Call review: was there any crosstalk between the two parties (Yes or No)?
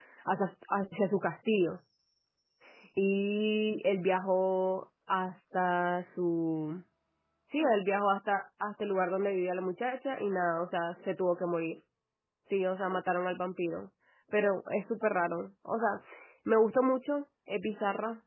No